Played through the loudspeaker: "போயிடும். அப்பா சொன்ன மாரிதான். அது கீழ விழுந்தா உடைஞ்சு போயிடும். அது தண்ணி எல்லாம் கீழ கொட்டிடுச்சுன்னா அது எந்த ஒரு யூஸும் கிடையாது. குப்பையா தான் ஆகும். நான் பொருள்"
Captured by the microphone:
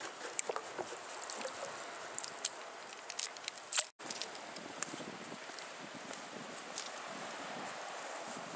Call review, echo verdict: none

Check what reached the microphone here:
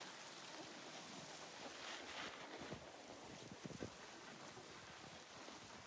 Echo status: none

